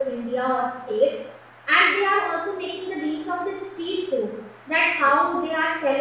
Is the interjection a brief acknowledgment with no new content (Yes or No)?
Yes